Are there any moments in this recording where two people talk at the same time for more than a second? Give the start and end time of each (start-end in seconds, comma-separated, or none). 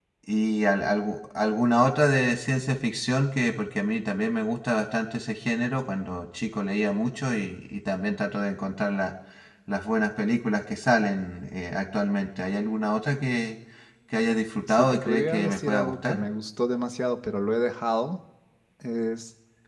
14.7-16.2